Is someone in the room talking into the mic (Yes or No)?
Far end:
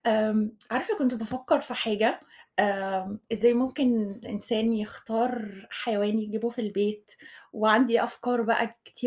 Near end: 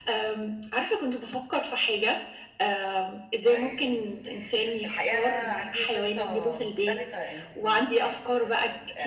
Yes